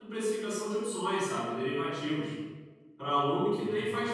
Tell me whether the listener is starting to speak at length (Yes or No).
No